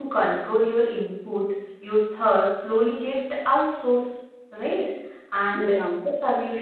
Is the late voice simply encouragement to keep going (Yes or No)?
Yes